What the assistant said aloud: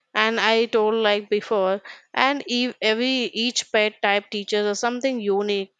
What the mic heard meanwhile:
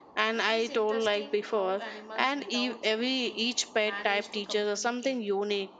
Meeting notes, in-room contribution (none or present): present